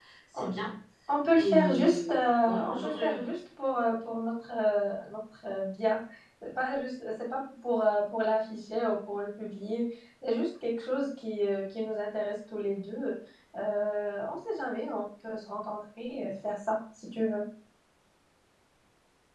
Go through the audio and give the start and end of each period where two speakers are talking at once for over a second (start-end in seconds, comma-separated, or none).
1.3-3.1